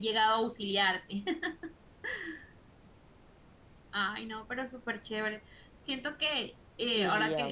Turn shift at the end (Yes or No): Yes